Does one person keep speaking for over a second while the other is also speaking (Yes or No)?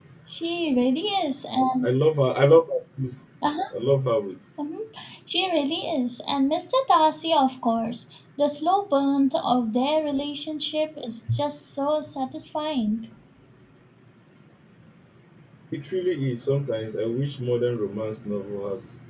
No